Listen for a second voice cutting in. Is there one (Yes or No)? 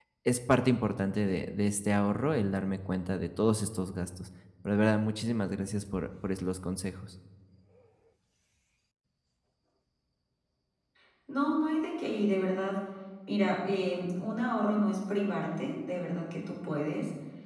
No